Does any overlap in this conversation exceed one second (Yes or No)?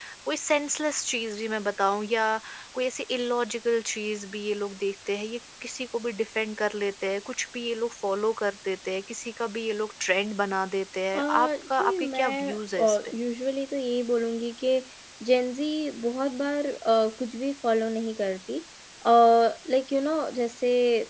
Yes